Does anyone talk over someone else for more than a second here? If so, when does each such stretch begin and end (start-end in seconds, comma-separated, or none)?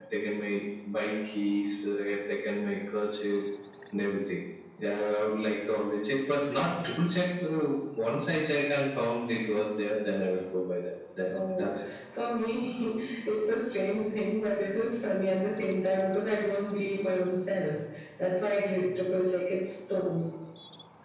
none